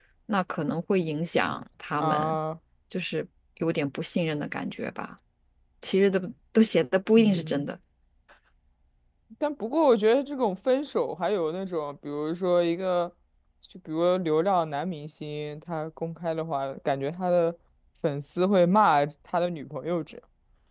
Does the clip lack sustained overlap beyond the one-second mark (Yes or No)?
Yes